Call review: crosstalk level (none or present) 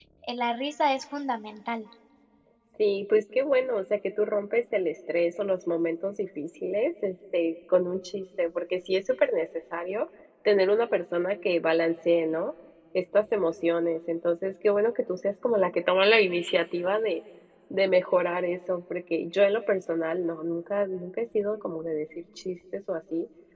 none